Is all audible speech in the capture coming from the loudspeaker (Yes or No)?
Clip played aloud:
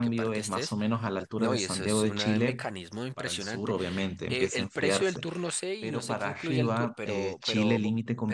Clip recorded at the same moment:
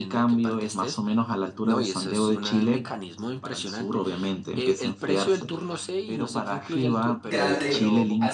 No